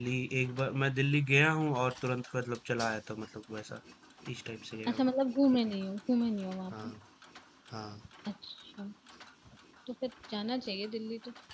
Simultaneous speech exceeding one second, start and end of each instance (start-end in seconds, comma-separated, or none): none